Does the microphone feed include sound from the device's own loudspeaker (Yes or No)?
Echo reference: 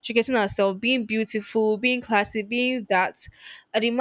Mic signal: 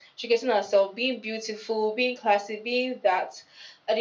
Yes